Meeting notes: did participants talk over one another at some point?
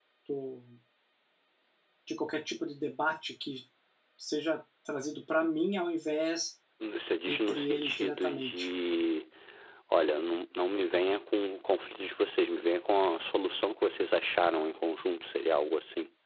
Yes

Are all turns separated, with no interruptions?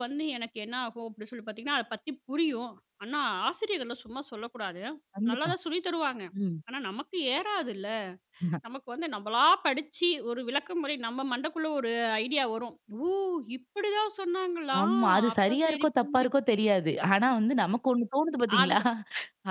No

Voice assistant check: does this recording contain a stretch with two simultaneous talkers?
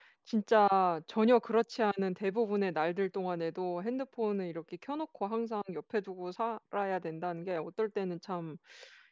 No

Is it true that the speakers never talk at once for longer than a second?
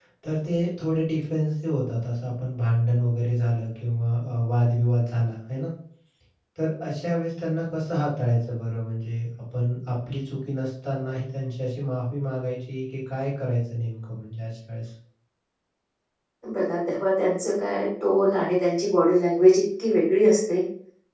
Yes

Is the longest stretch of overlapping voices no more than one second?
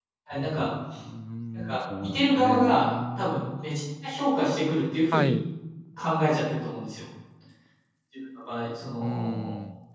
No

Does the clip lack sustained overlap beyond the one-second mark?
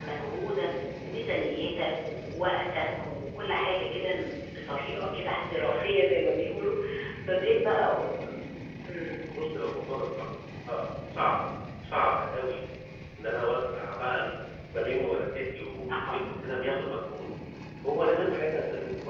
Yes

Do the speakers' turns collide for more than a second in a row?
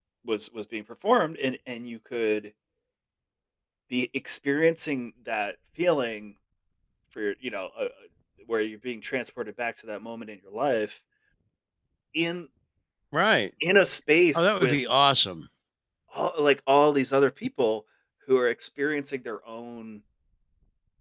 No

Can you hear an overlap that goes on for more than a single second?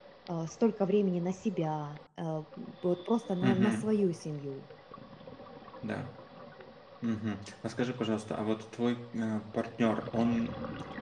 No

